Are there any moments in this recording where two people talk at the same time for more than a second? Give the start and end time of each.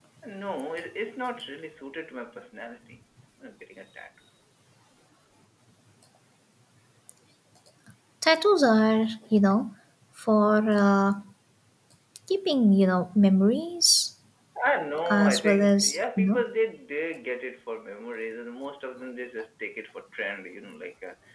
15.1-16.4

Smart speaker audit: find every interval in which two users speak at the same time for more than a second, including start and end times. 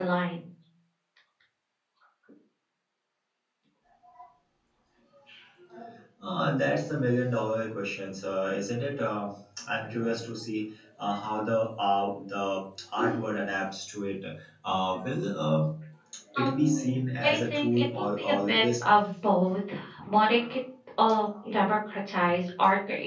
16.4-18.9

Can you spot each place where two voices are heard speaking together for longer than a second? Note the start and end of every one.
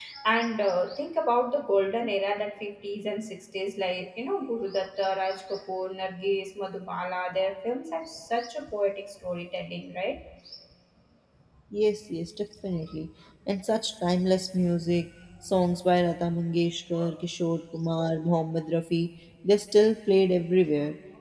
none

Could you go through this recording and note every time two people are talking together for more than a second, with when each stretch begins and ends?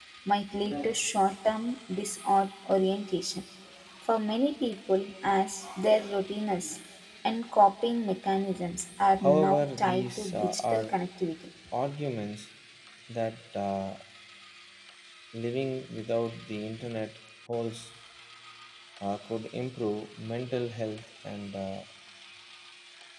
9.2-10.9

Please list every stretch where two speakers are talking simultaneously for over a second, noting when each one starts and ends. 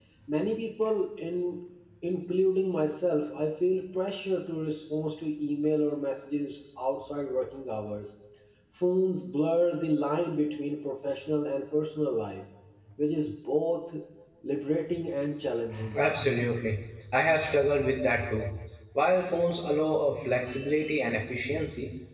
none

